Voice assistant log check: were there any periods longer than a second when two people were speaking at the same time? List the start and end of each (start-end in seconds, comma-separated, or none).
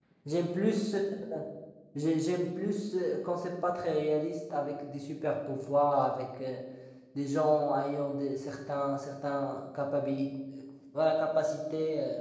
none